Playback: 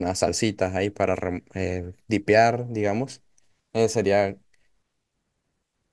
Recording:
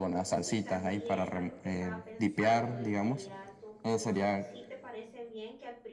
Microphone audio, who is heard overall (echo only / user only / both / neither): both